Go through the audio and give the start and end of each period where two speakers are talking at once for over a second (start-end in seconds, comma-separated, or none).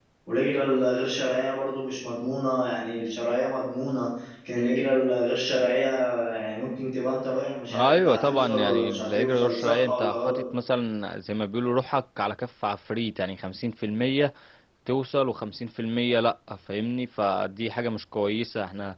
7.7-10.4